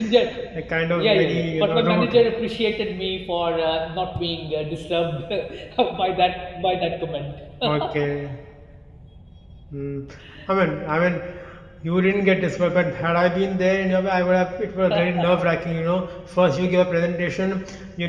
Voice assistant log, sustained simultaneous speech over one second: present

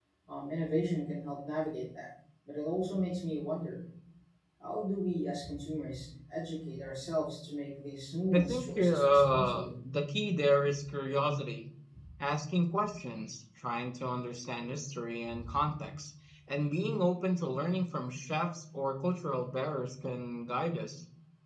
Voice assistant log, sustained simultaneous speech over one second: present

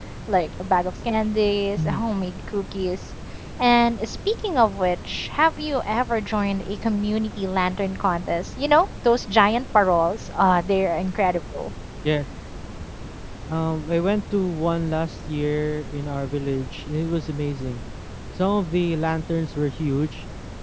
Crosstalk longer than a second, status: none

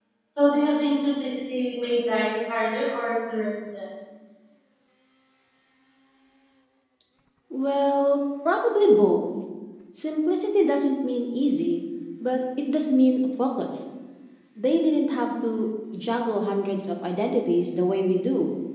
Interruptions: none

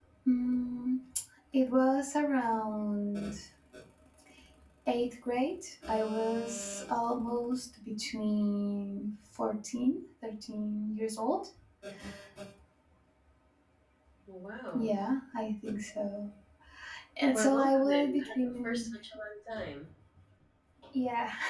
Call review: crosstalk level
present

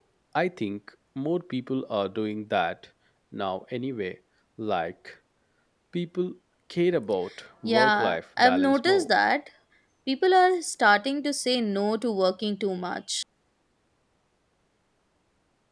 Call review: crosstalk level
present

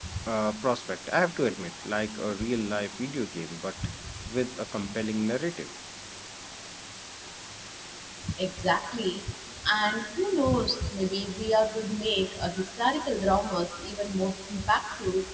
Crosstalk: none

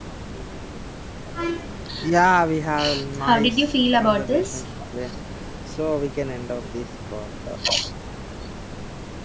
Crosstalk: present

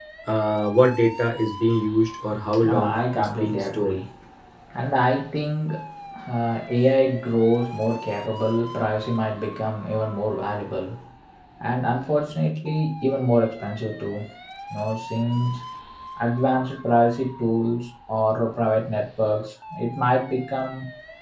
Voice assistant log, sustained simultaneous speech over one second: present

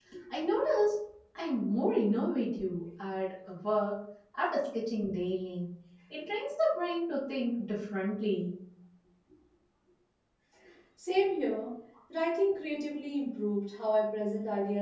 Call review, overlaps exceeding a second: none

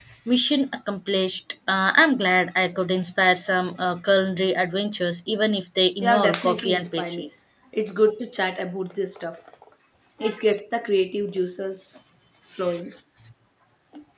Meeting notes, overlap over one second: present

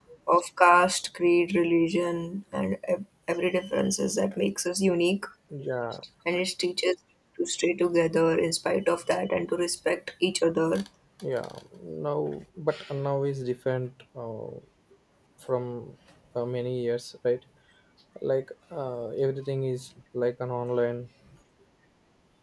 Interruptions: none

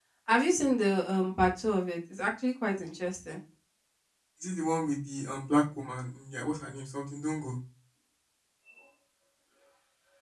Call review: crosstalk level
none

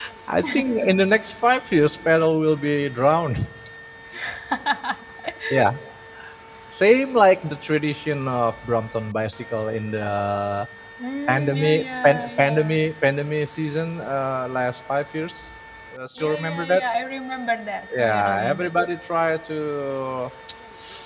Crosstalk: present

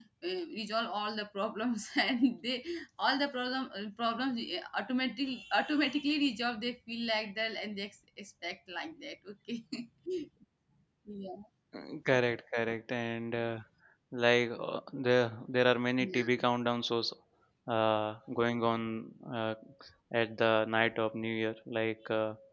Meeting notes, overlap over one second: none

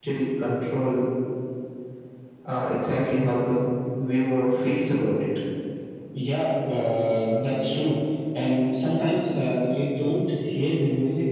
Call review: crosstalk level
none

